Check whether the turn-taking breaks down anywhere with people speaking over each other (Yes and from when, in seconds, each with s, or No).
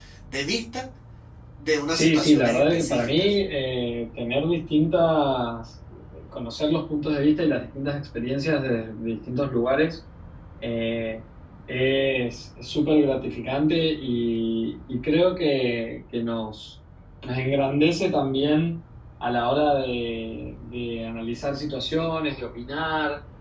Yes, from 1.9 s